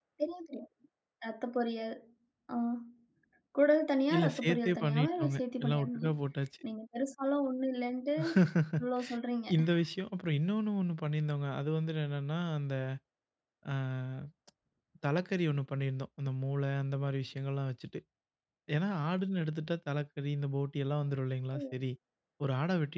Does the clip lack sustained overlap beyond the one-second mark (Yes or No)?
No